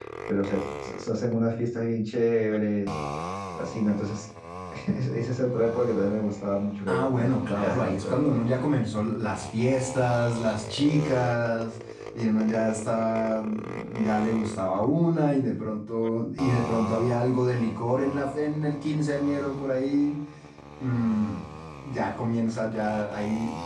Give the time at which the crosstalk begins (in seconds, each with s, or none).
6.9 s